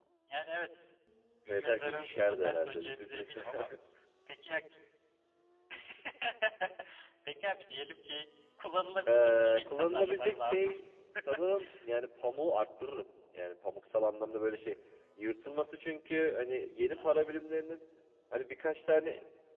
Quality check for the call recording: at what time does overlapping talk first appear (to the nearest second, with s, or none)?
1 s